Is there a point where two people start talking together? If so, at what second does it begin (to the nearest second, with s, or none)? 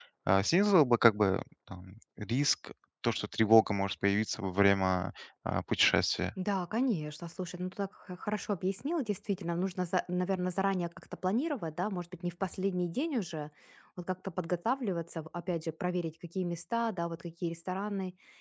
none